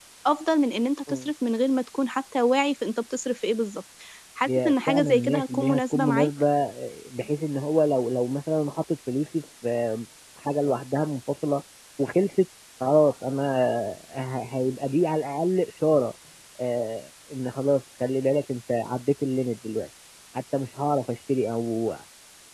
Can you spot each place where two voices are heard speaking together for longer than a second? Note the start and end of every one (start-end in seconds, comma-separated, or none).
4.5-6.3